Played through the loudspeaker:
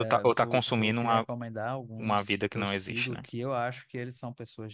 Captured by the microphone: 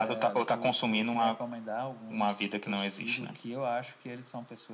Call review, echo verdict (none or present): present